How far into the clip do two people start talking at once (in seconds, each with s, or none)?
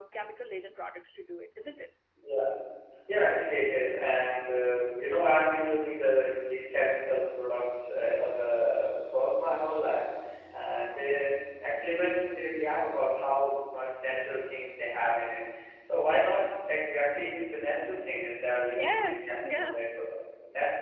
18.7 s